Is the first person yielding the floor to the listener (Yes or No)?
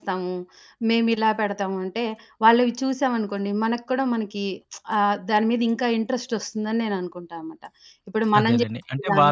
Yes